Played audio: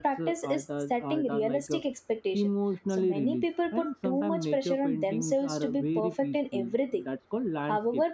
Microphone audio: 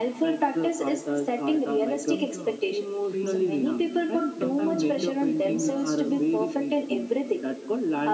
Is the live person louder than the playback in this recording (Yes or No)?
No